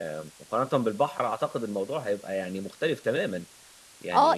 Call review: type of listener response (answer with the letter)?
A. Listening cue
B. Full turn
B